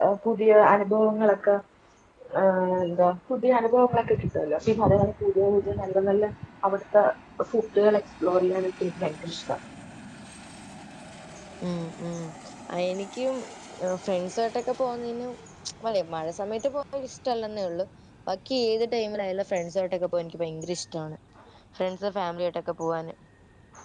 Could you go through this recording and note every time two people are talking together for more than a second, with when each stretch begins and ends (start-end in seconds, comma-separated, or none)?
none